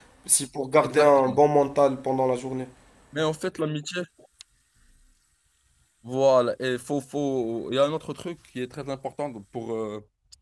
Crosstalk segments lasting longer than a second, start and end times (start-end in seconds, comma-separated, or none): none